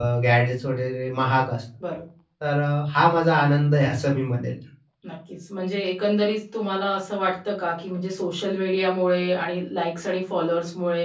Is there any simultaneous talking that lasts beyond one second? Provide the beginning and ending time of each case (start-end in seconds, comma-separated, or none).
none